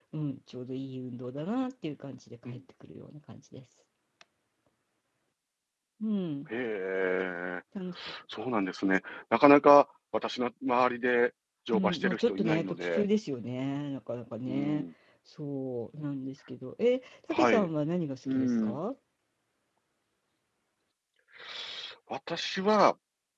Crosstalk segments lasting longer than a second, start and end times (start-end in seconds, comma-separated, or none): 11.7-13.0